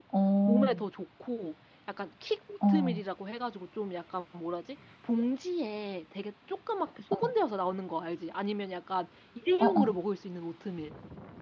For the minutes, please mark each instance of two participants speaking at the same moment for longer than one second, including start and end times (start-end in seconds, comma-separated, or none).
none